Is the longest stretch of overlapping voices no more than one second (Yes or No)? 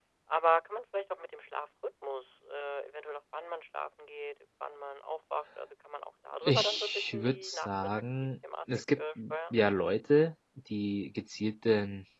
No